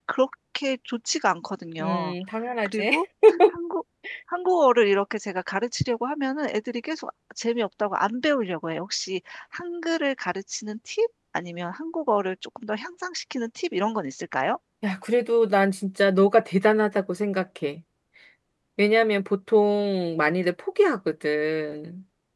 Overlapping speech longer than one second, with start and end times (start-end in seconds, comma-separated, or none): none